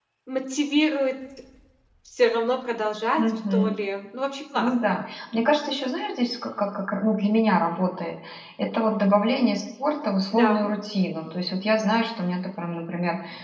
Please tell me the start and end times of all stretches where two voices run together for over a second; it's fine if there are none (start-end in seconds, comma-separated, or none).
none